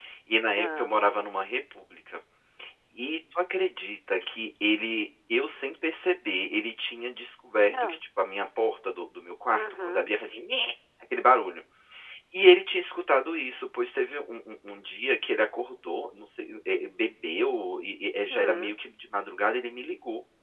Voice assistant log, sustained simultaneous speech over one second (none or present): none